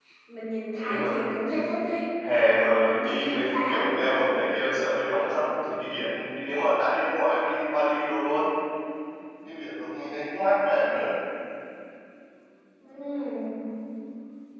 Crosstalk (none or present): present